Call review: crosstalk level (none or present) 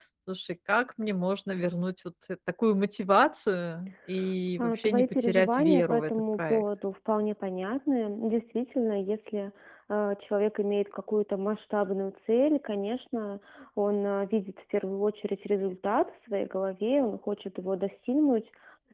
present